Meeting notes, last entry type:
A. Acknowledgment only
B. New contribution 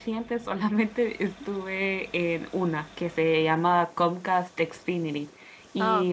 A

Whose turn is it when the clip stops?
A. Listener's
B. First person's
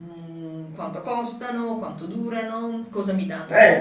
B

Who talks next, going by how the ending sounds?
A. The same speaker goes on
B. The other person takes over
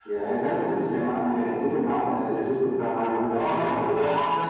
B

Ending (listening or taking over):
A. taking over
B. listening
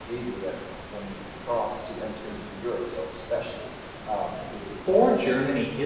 A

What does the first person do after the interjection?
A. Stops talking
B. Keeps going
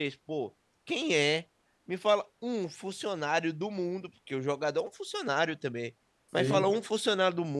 B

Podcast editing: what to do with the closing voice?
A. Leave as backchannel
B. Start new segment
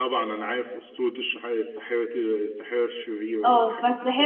B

